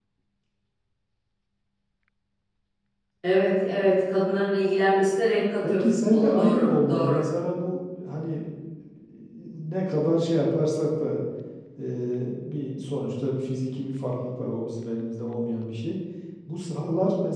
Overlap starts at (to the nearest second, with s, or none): 6 s